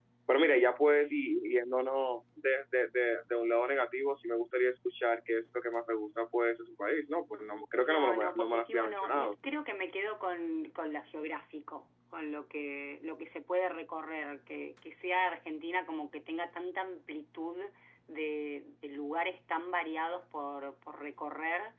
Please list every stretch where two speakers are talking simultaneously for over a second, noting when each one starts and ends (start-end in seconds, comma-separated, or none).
7.7-9.3